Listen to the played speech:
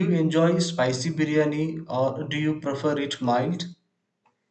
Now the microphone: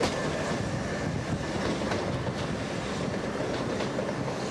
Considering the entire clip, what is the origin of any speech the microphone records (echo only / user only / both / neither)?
neither